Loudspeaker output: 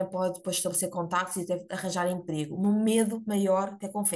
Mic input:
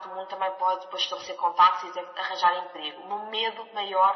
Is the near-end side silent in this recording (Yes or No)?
Yes